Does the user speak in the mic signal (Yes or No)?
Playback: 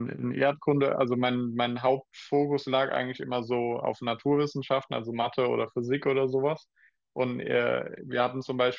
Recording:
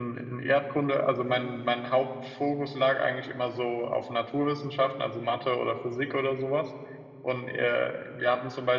No